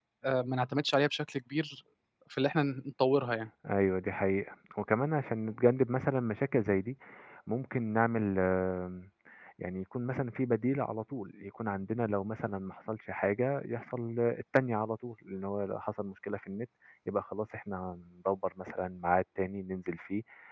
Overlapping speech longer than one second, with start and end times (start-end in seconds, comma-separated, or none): none